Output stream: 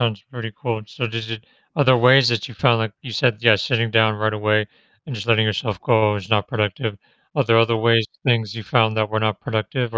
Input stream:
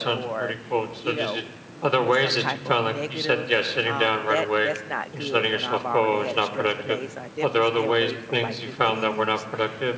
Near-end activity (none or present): present